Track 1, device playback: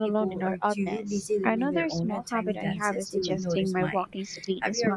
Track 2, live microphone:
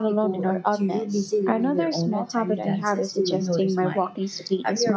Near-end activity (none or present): none